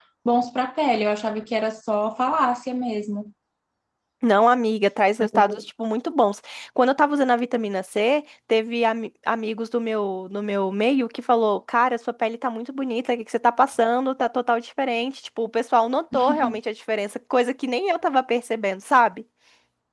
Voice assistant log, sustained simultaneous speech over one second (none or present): none